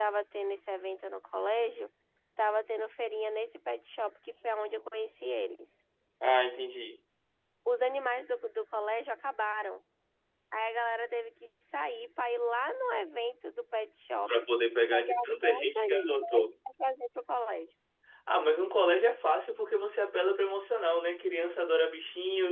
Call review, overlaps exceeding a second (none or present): present